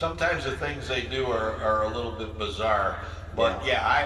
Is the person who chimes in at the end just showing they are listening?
Yes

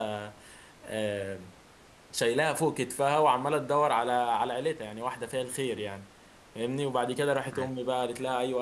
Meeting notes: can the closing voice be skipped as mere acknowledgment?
Yes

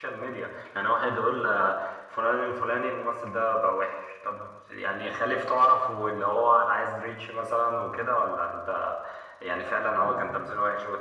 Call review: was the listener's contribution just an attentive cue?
Yes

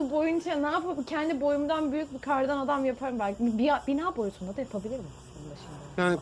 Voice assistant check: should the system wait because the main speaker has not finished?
No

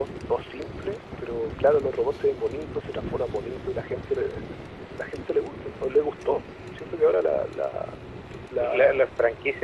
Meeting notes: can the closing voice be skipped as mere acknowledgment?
No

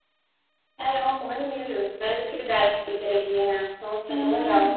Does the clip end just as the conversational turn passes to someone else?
Yes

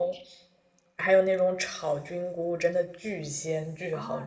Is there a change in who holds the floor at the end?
Yes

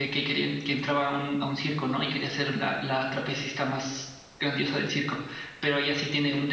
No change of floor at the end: Yes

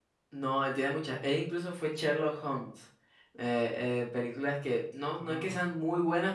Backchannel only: Yes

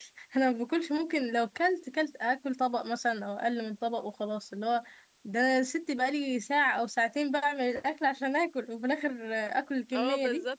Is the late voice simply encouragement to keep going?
No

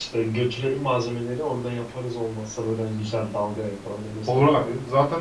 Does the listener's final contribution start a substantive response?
Yes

